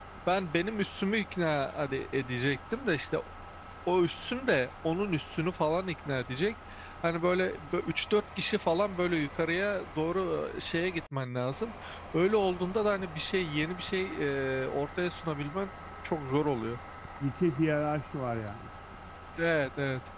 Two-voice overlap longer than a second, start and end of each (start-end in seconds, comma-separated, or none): none